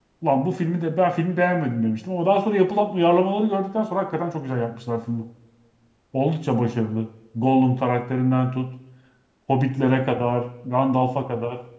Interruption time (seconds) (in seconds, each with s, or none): none